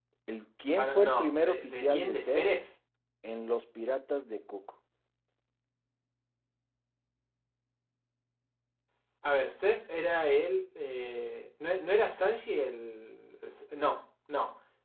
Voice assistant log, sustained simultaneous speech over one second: present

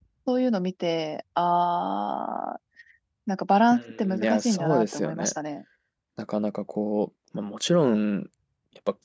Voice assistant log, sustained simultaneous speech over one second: present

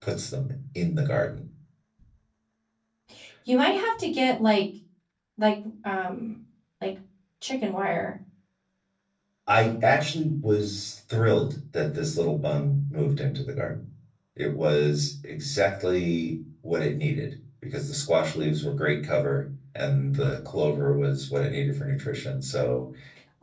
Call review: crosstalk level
none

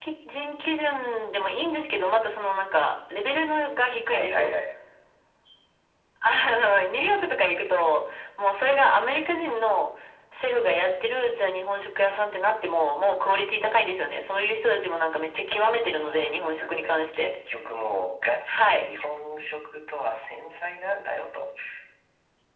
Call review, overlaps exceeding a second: present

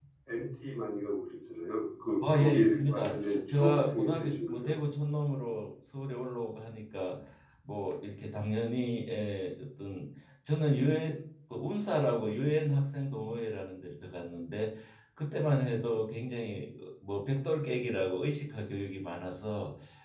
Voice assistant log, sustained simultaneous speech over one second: present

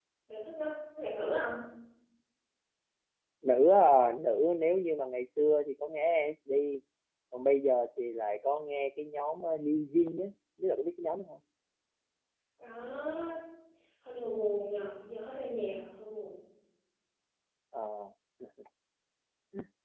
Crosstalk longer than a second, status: none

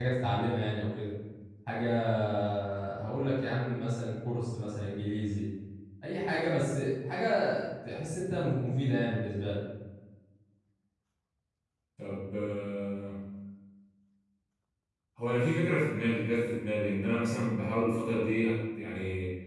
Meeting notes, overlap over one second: none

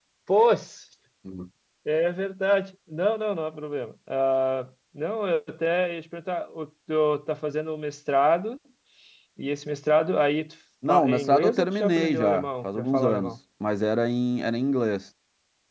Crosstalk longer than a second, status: present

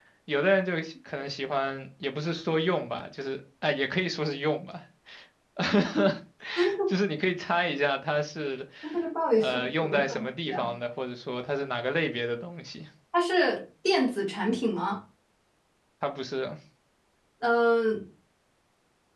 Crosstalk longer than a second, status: present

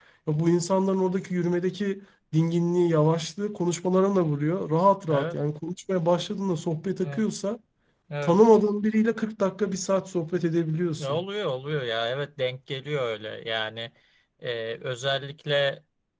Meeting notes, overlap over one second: none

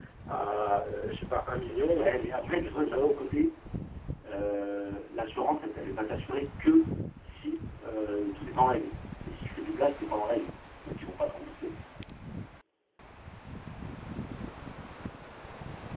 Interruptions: present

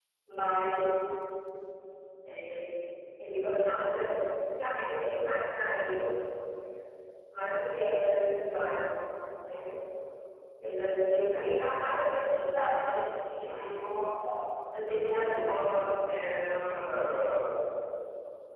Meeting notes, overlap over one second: none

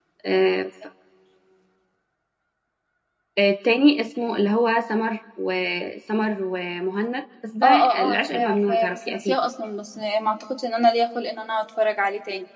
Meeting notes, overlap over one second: present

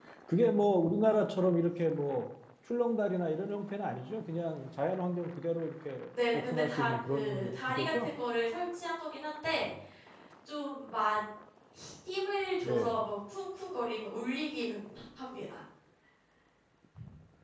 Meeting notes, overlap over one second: present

